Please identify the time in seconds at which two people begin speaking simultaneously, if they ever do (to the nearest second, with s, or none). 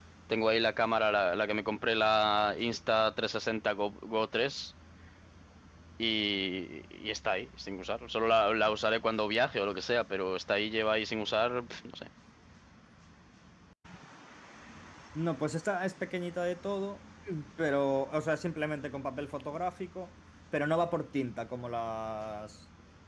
none